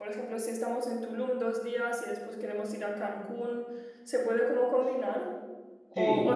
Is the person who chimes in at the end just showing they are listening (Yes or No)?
Yes